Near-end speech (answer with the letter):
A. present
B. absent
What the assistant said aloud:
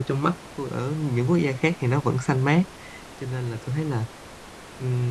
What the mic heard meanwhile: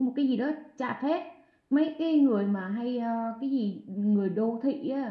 A